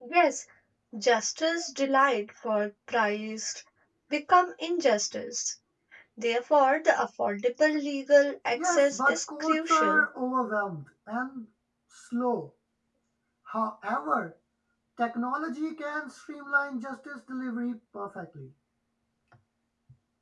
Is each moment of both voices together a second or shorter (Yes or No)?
No